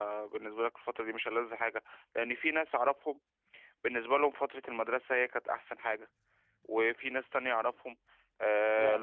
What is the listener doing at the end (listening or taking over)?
listening